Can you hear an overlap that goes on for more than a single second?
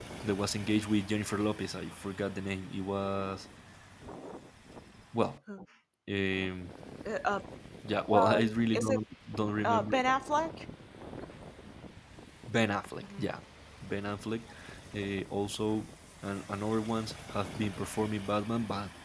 No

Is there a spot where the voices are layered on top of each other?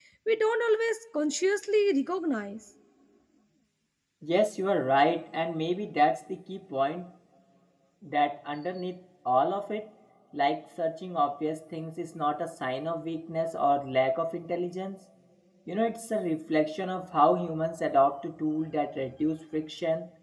No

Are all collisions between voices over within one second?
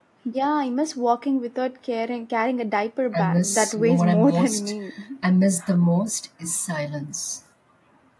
No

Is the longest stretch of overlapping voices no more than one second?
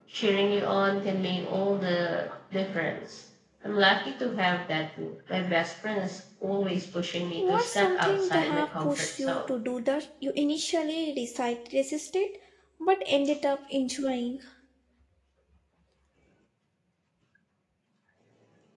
No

